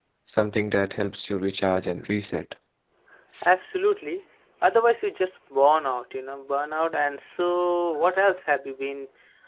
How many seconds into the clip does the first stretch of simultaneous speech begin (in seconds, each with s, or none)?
none